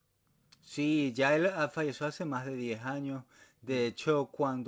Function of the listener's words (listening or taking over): listening